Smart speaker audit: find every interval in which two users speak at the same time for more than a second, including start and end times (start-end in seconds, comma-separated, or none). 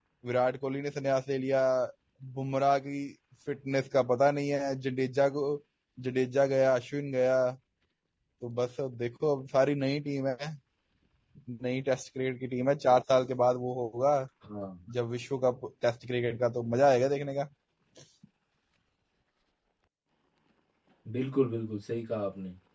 none